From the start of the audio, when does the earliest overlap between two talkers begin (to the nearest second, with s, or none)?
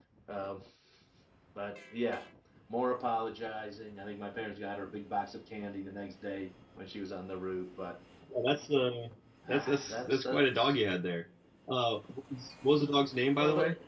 9 s